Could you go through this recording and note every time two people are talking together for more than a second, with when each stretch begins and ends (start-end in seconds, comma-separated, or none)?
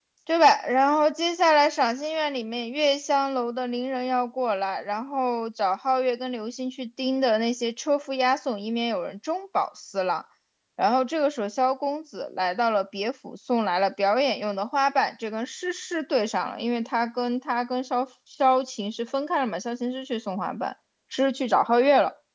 none